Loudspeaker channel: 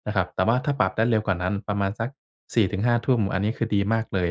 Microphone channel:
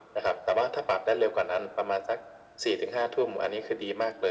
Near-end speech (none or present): none